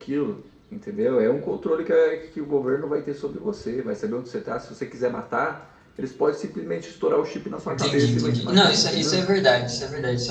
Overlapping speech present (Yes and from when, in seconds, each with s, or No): Yes, from 7.7 s